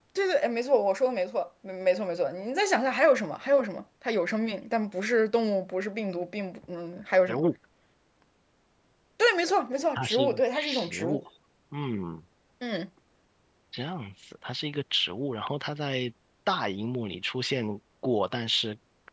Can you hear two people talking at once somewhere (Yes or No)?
Yes